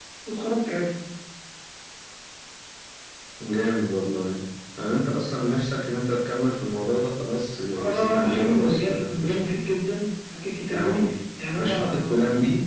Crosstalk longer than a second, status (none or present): present